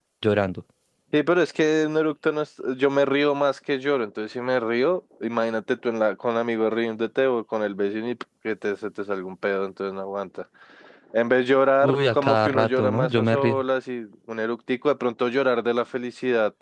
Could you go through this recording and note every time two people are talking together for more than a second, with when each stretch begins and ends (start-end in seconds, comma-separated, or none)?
11.8-13.6